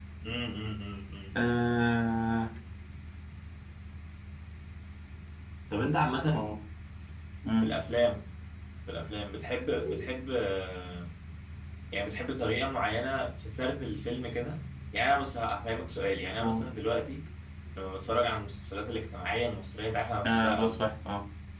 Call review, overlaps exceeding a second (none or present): none